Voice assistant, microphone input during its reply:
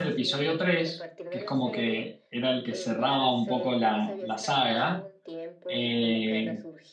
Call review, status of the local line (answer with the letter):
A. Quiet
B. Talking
B